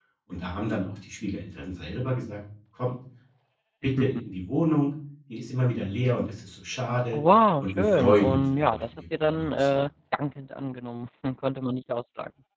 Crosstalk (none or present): present